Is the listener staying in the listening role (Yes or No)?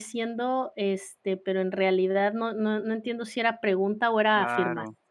No